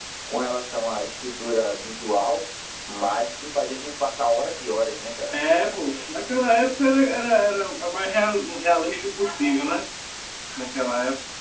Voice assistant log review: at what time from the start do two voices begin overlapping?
none

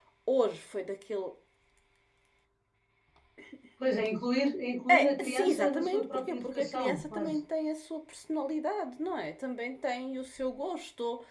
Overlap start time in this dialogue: 4.9 s

